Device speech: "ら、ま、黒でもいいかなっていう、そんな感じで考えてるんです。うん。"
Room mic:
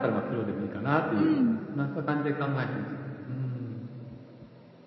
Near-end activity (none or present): present